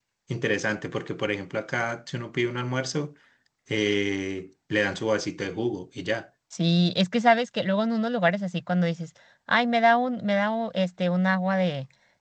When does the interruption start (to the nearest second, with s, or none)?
none